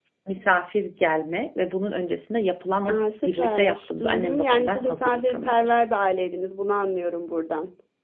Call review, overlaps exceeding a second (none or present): present